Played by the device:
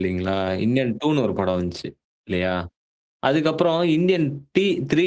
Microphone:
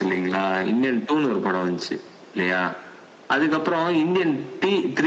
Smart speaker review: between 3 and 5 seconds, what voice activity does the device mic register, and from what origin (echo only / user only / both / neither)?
echo only